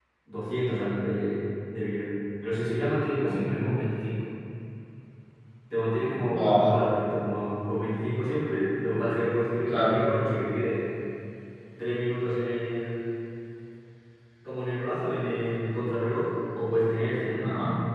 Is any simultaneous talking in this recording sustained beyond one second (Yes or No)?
No